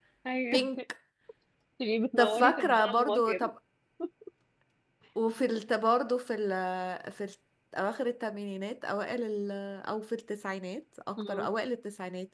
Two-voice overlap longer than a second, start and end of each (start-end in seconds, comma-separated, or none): 2.2-3.5